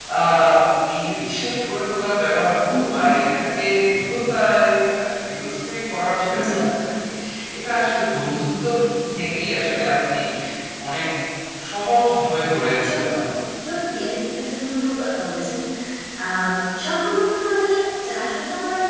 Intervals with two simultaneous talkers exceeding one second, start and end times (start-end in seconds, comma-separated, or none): none